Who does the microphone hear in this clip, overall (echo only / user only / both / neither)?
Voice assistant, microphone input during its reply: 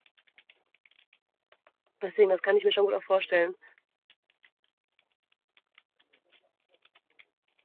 user only